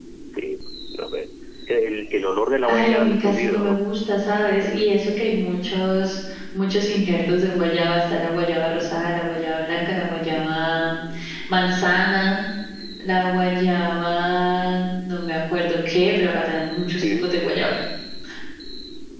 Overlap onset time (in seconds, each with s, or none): 2.6 s